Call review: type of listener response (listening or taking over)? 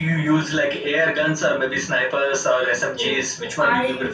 taking over